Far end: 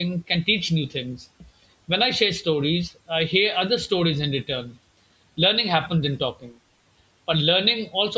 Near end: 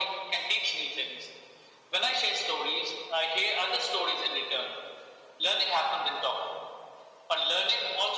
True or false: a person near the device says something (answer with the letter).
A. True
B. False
B